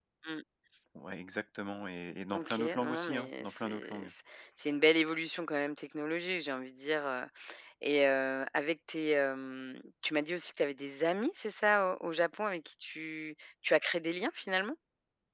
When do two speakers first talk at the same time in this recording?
2 s

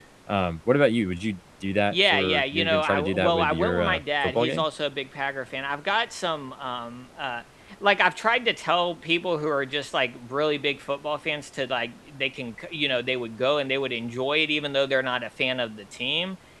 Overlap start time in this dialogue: 2 s

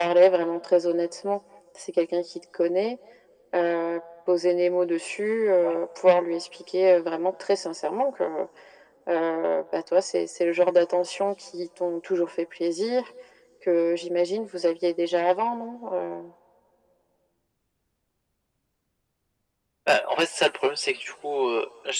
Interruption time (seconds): none

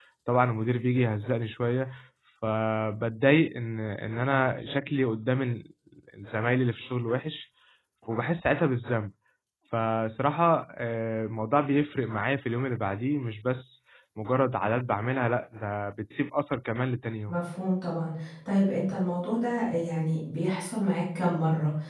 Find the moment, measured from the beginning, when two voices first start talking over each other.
none

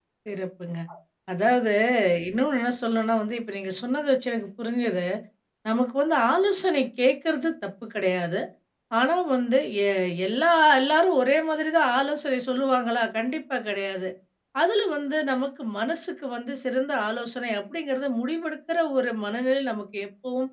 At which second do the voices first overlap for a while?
none

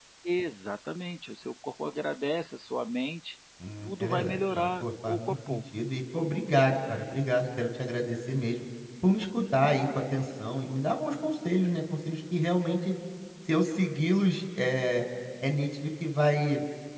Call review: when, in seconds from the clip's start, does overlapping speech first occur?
4 s

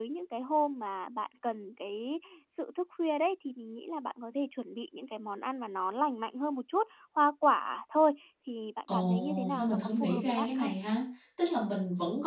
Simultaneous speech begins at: 9 s

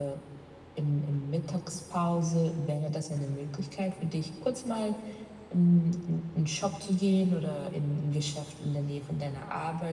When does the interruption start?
none

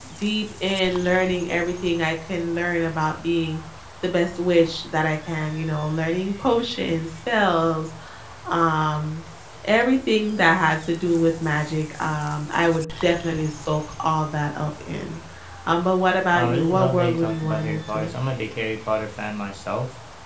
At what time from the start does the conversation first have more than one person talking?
16 s

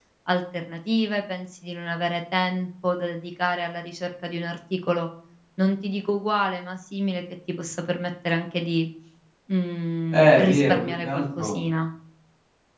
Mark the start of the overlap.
10 s

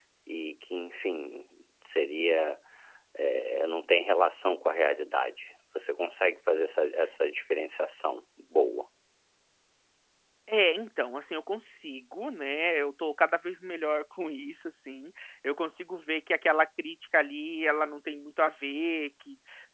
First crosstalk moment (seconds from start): none

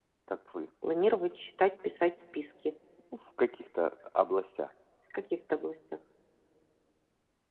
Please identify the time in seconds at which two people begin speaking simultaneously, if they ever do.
none

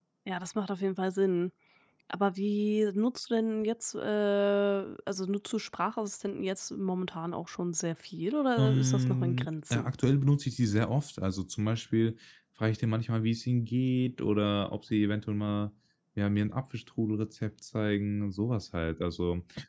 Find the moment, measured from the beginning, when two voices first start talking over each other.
9 s

